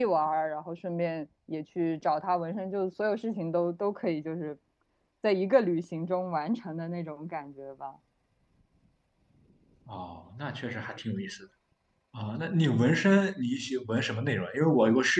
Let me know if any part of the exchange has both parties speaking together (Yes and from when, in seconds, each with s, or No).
No